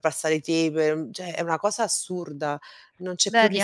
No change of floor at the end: No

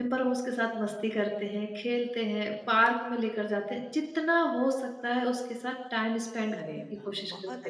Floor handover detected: Yes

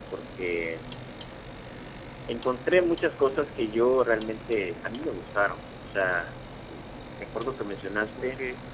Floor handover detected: Yes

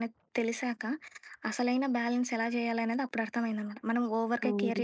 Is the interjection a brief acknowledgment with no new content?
Yes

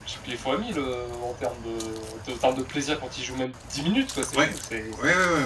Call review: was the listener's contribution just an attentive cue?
No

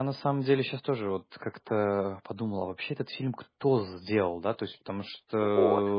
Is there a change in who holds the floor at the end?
No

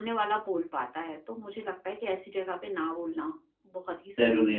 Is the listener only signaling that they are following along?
No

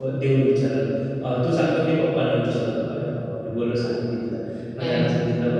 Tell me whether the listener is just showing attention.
Yes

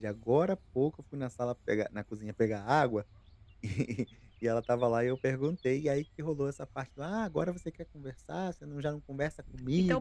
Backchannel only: No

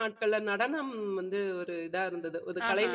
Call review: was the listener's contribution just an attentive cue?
Yes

